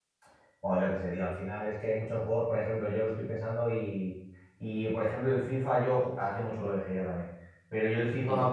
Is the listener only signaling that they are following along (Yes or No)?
Yes